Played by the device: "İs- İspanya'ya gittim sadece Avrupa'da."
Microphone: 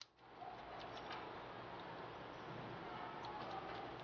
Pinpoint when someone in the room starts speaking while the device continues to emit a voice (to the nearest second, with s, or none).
none